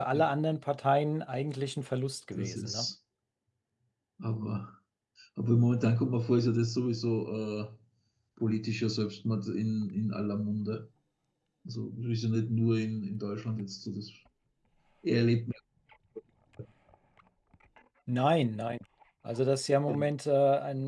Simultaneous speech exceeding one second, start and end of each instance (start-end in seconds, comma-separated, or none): none